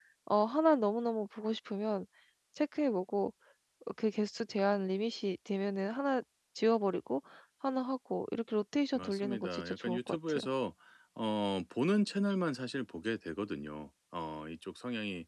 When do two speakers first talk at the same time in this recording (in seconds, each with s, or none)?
8.9 s